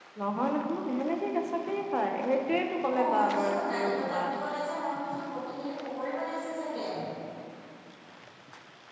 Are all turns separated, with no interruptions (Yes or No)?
No